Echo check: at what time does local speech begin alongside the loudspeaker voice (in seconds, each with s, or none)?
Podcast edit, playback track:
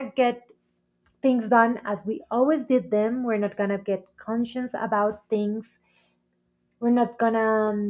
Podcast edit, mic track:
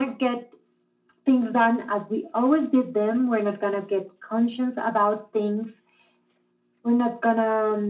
none